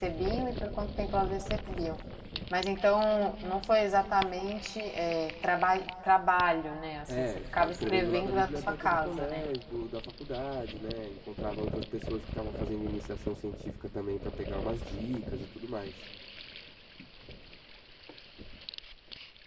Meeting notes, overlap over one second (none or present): present